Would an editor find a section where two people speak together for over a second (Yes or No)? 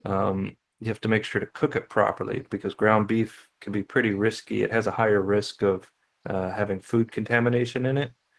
No